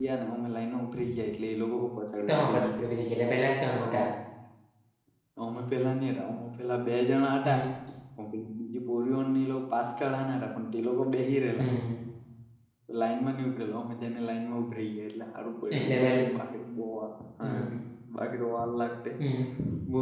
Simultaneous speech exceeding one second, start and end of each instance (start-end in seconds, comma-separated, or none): none